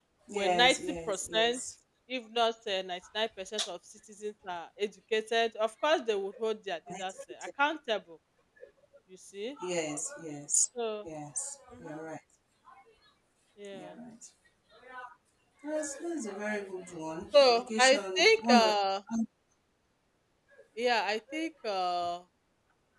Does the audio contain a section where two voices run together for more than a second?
Yes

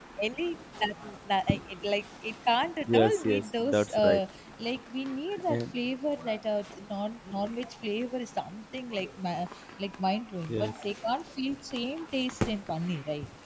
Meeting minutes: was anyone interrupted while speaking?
Yes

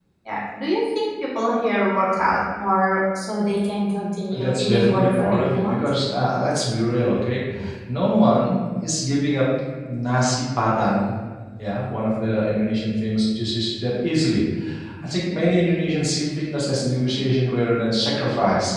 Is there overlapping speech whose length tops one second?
Yes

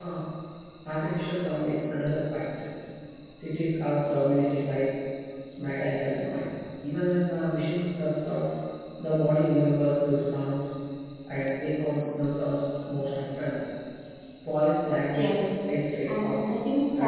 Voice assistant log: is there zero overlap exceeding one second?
Yes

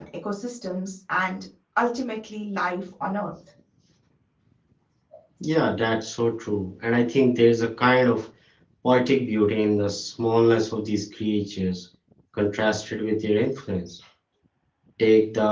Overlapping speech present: No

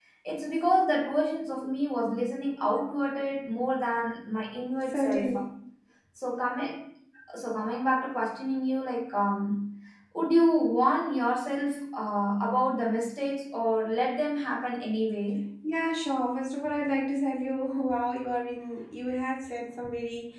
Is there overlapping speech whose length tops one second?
No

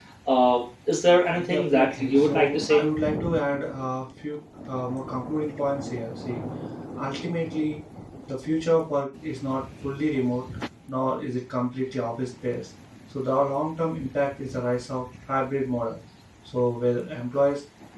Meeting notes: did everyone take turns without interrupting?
No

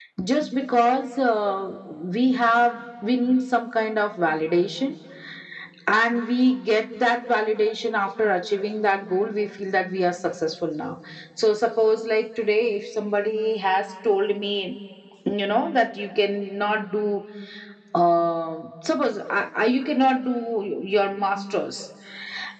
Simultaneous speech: No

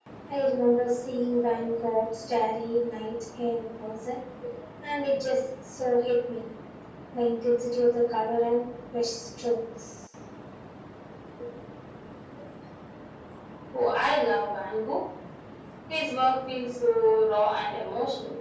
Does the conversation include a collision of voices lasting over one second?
No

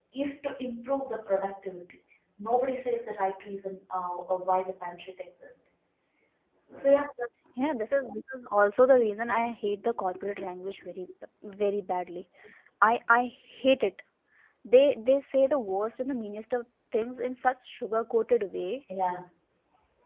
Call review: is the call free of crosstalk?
Yes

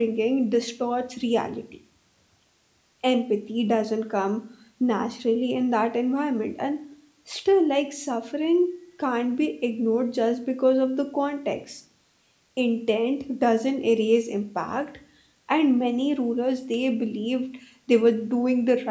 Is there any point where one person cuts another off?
No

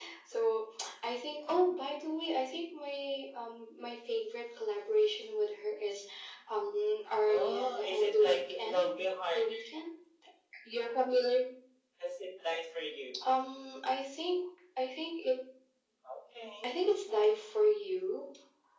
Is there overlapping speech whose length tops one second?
Yes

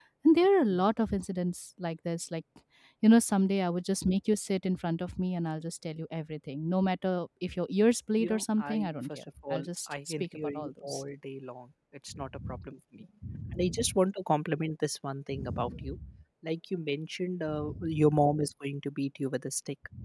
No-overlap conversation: No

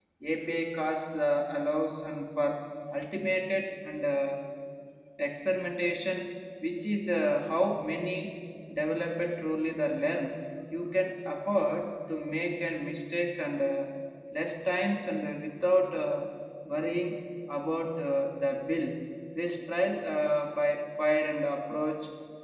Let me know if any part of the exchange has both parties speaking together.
No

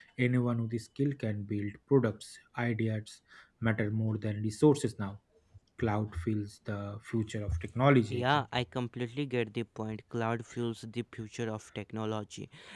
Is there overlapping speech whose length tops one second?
No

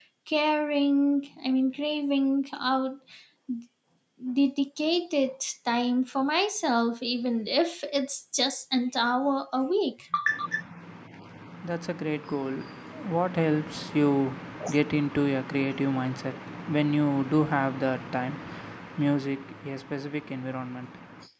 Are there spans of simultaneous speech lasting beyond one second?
No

